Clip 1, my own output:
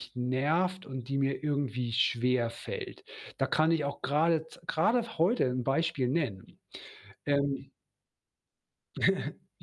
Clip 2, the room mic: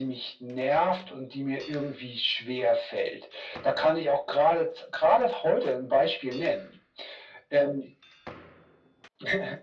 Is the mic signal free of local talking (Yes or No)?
Yes